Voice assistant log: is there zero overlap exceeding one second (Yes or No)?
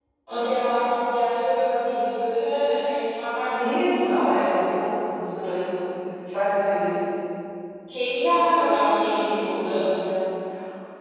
No